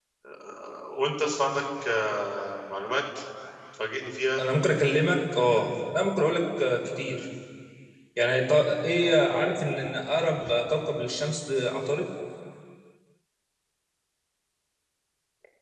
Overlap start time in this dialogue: none

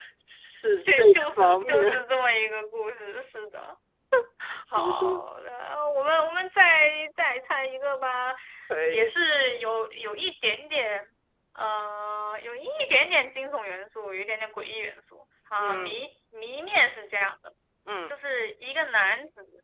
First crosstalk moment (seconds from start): 0.8 s

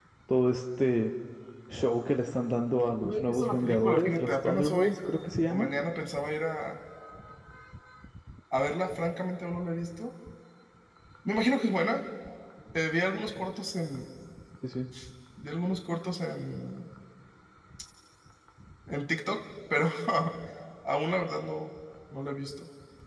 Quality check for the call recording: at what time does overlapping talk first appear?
3.0 s

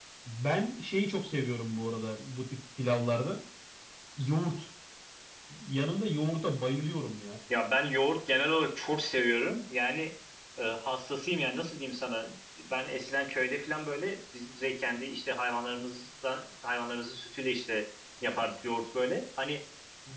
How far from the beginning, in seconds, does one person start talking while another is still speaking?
none

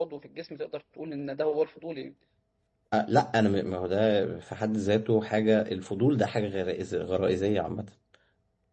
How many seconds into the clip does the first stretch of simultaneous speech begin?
none

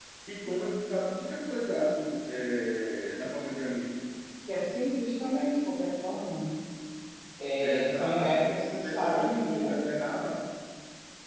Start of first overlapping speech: 7.6 s

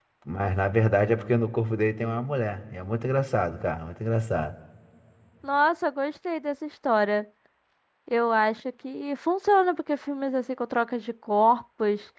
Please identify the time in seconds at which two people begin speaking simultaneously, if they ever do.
none

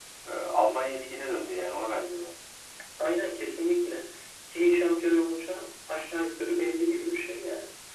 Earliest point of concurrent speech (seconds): none

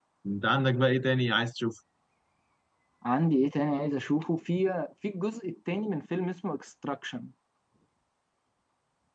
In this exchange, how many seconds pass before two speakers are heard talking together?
none

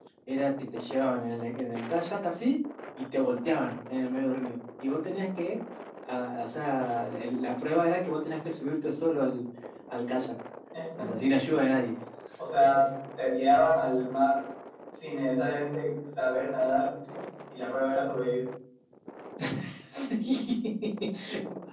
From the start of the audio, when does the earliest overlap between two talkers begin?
none

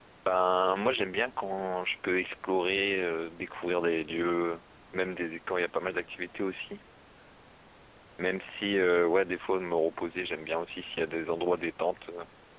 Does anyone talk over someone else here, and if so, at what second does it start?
none

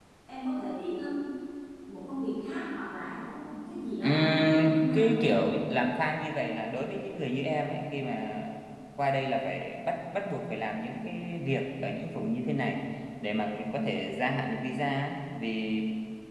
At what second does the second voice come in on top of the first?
4.0 s

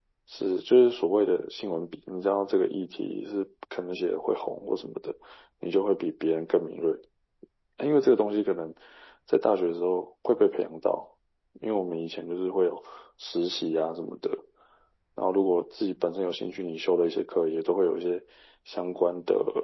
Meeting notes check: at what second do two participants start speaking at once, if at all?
none

